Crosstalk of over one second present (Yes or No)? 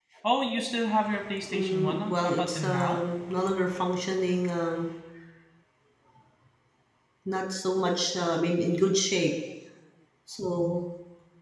Yes